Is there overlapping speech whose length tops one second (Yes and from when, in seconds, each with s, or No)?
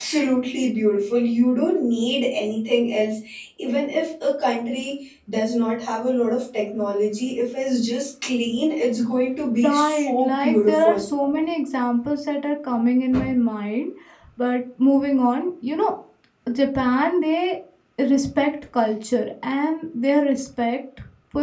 Yes, from 9.6 s